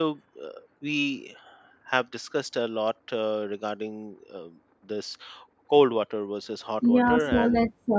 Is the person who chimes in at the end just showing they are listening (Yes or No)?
No